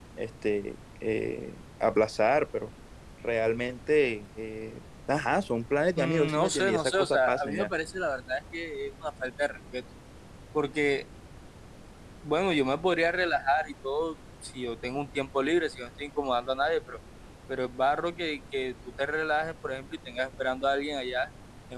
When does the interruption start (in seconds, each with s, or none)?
6.0 s